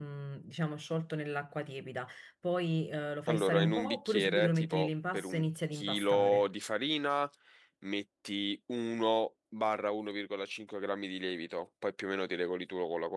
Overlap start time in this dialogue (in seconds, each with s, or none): 3.3 s